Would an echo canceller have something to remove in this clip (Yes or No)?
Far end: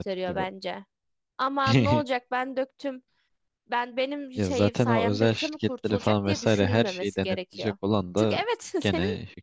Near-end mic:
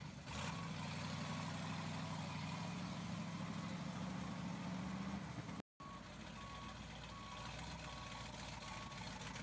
No